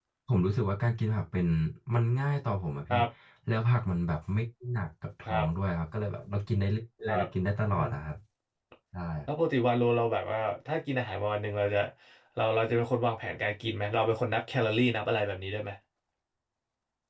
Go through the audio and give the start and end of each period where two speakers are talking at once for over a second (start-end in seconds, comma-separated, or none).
none